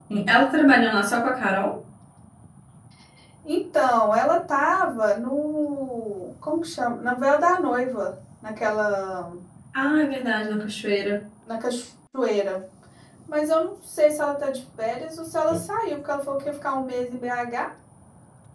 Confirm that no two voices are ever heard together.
Yes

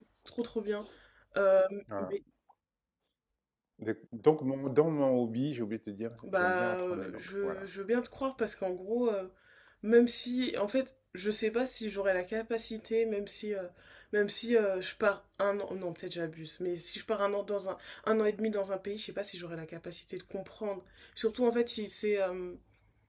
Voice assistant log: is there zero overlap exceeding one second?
No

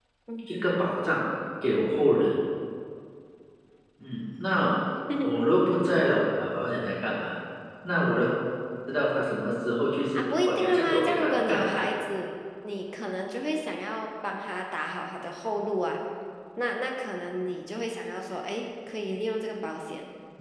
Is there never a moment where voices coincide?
No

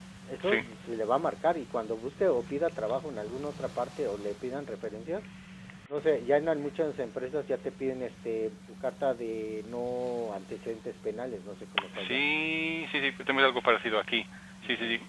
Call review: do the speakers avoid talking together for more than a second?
Yes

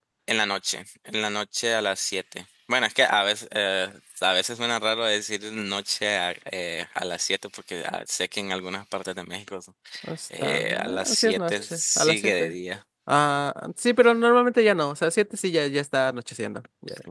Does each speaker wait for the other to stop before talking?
No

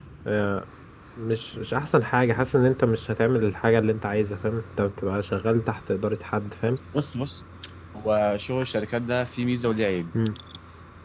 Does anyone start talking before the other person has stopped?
No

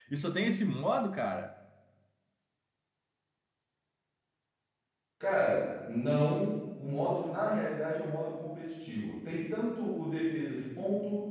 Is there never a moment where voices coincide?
Yes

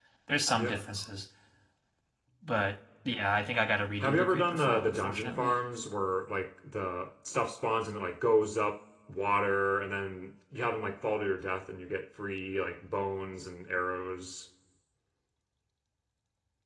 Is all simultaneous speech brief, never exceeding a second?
No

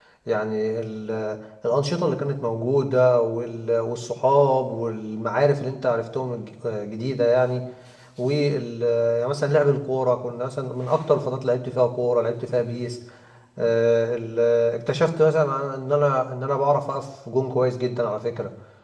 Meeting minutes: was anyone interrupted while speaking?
No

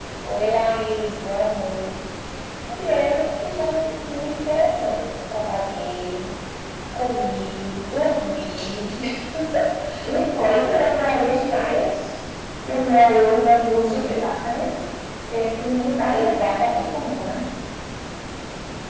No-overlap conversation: No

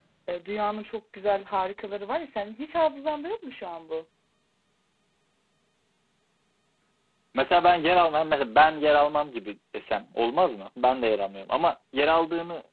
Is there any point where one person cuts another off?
No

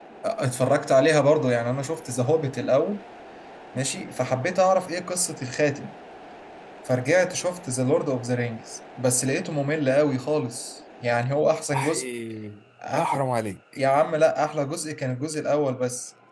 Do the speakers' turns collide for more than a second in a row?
No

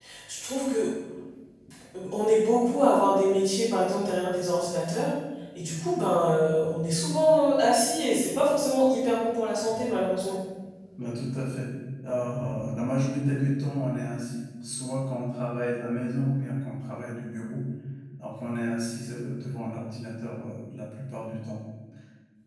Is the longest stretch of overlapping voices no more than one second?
Yes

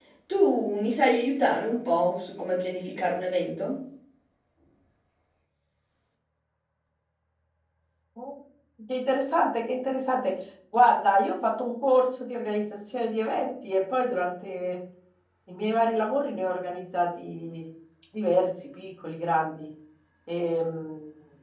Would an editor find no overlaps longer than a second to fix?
Yes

